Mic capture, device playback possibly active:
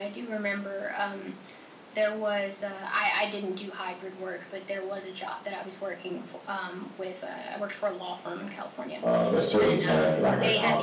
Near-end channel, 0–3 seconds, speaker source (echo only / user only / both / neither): echo only